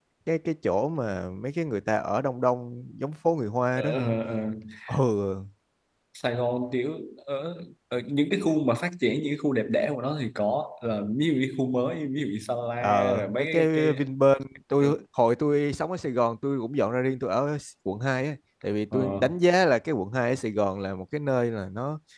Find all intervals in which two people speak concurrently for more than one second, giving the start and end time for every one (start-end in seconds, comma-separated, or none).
12.8-14.1